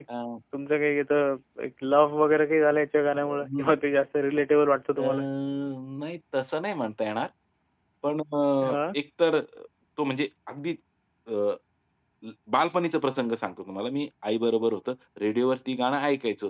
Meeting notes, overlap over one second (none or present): none